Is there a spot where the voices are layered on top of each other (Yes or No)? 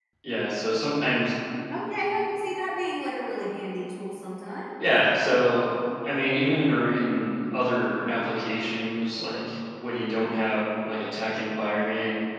No